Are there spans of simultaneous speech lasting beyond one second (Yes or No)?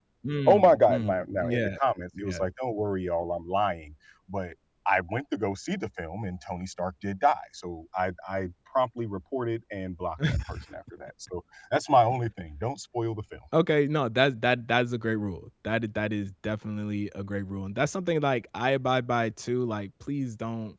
Yes